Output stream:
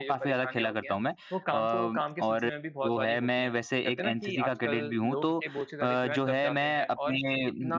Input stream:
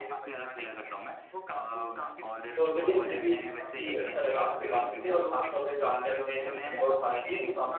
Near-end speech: present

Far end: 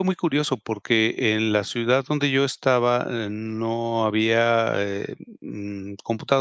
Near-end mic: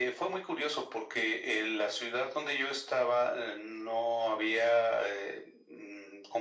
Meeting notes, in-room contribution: none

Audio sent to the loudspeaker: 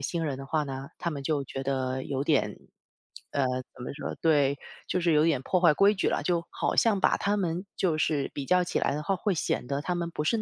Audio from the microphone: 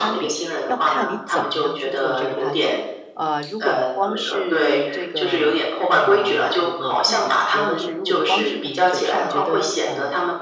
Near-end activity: present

